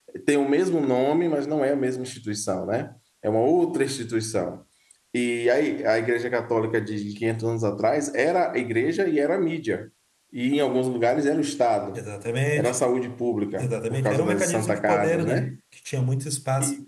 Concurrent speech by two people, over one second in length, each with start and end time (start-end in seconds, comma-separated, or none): 13.6-15.5